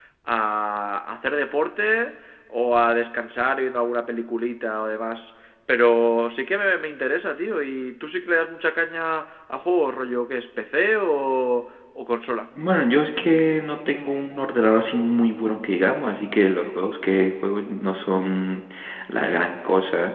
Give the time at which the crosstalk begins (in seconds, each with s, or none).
none